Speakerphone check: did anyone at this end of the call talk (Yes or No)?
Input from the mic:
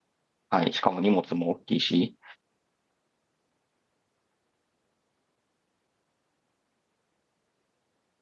Yes